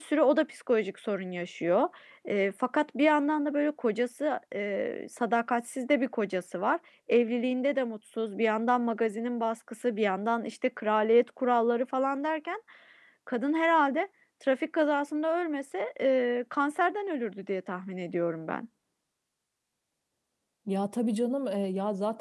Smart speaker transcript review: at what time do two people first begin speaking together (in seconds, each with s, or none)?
none